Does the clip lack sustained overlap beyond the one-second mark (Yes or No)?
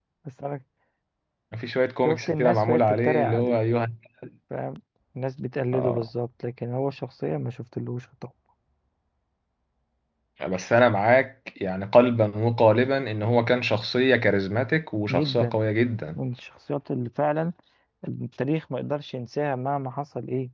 No